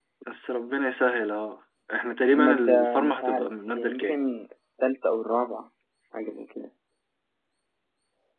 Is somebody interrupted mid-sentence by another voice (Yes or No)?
Yes